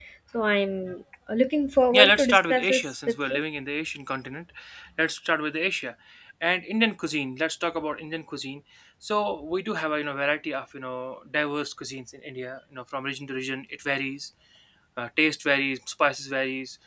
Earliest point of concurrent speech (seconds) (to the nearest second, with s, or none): 2 s